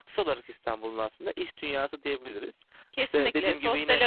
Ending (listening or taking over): taking over